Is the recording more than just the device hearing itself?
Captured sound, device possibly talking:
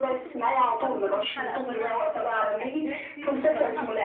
Yes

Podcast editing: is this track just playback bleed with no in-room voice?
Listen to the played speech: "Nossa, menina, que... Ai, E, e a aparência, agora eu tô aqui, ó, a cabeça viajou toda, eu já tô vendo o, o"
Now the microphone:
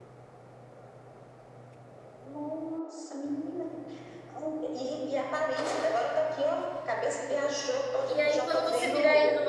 No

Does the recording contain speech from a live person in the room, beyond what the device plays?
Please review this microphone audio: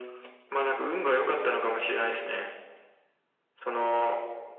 No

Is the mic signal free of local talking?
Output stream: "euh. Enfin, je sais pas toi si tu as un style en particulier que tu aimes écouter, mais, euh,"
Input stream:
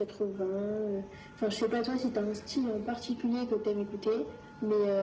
Yes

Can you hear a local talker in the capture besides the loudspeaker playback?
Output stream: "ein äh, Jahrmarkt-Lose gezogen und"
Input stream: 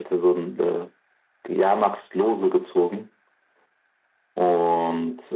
No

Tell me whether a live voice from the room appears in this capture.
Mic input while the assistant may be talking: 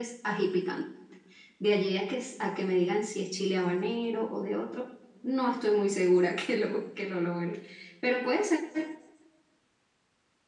No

